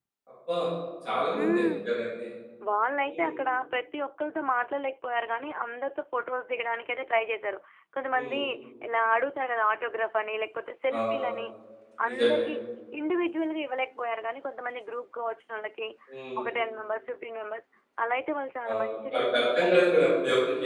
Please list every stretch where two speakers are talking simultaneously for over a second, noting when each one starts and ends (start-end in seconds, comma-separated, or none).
18.7-20.0